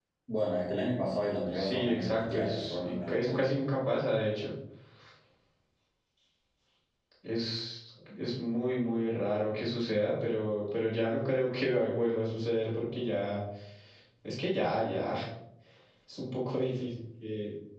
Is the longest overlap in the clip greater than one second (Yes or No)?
Yes